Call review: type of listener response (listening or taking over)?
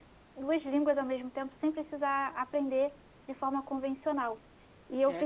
listening